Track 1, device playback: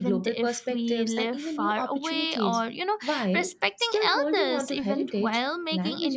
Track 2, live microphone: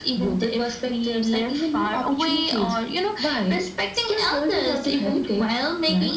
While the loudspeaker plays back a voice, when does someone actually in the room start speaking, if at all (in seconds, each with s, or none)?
none